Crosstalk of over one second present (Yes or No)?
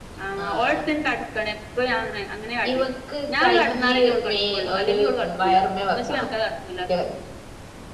Yes